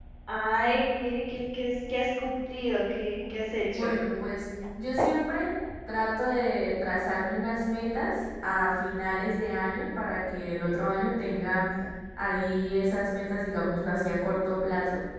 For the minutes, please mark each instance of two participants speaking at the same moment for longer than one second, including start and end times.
none

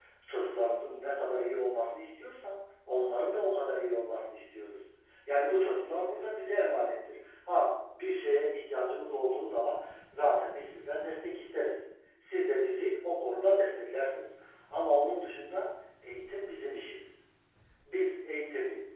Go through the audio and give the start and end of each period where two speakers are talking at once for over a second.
none

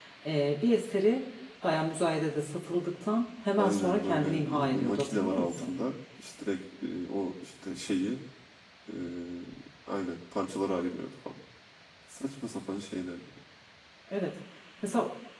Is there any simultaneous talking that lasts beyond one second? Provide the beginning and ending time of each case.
3.6-5.7

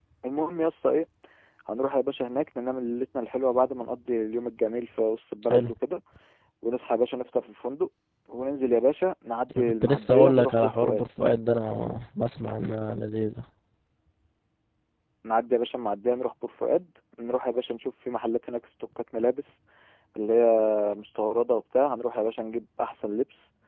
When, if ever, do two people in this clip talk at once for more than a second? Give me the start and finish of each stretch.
9.6-11.0

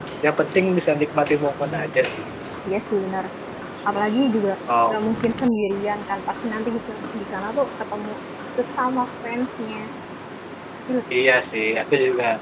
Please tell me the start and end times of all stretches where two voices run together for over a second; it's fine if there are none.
none

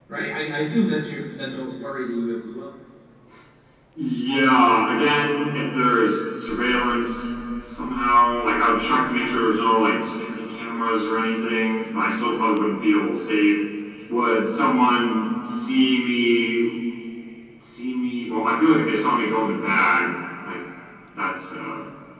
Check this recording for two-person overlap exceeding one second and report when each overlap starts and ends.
none

